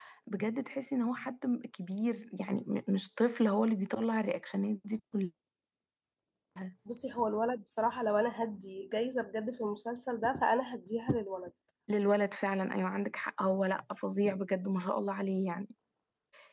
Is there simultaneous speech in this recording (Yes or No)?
No